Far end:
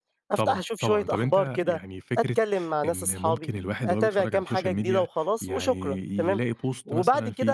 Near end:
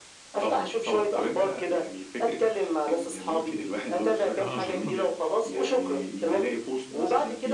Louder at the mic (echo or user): echo